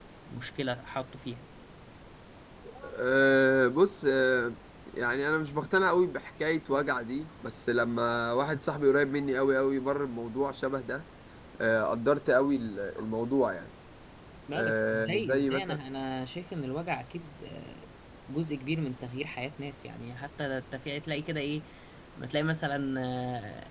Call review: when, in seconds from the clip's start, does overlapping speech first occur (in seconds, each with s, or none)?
14.6 s